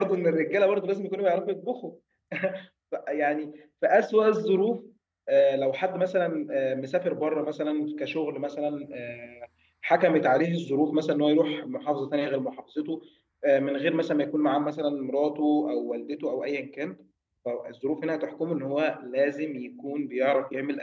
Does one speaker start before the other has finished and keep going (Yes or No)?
No